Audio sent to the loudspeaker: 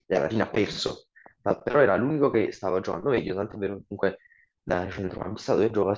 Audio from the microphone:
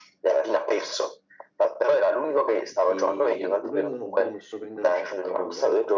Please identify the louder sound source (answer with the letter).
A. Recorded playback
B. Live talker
A